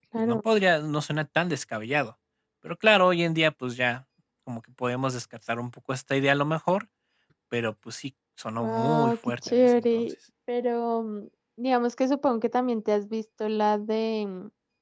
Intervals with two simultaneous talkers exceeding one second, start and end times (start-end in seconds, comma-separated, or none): 8.6-10.1